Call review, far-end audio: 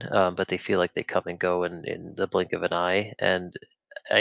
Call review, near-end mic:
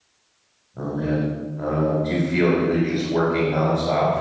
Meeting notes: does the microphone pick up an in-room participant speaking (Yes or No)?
Yes